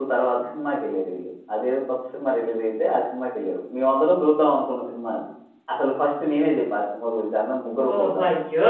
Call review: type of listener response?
taking over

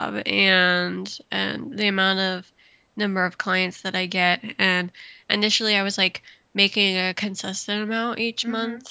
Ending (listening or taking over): listening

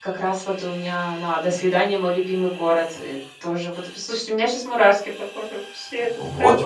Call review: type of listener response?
taking over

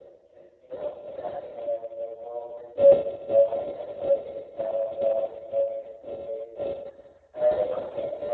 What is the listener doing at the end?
listening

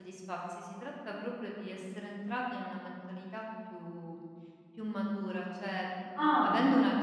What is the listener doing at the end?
listening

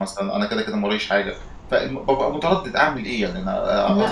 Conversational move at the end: listening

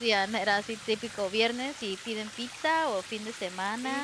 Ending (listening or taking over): taking over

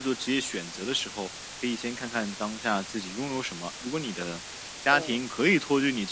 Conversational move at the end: listening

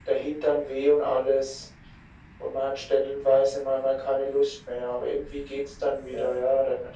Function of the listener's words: listening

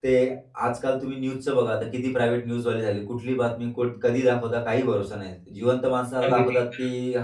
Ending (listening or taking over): listening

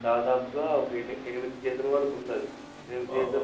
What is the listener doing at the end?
listening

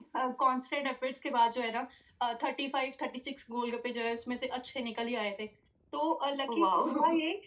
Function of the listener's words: listening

